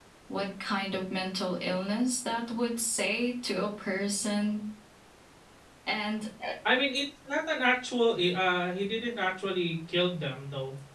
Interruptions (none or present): none